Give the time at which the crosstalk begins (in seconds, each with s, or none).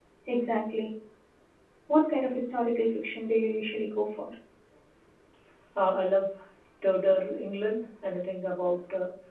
none